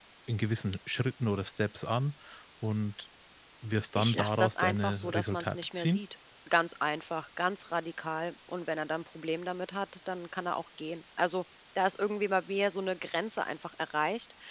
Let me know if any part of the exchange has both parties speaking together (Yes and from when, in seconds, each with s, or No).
Yes, from 4.0 s